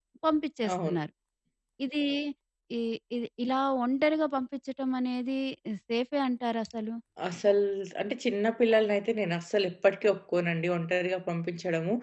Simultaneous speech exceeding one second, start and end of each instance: none

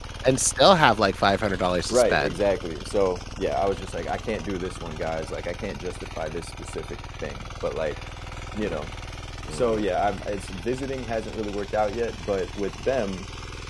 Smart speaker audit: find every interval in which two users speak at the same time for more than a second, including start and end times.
none

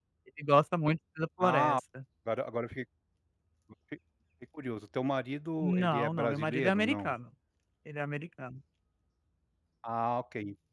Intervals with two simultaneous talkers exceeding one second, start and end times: 5.6-7.2

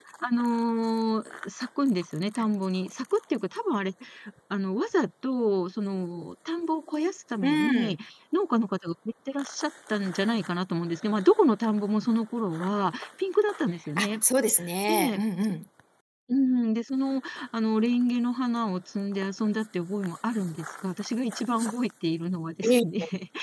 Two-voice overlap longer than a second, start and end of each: none

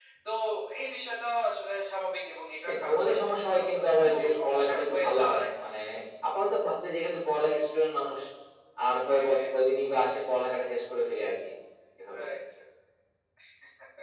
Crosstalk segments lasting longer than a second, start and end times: 2.6-5.5

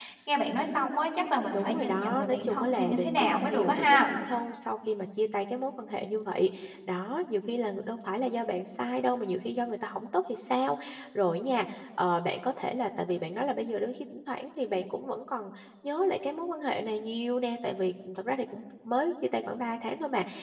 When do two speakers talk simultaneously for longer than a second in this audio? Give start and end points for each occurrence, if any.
1.5-4.0

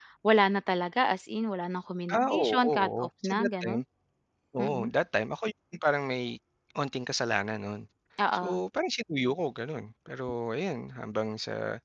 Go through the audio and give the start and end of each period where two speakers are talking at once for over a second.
2.1-3.8

